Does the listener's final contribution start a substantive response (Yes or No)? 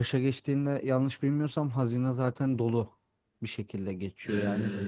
No